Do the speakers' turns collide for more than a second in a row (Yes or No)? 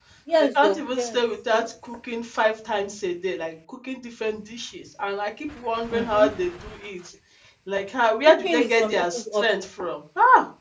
Yes